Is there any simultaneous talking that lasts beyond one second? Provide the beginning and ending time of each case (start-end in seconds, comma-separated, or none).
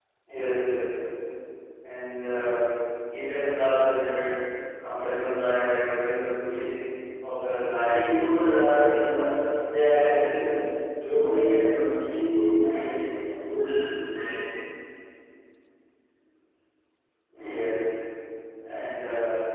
7.8-9.2